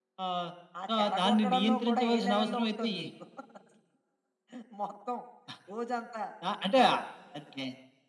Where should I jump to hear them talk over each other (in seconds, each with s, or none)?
1.0 s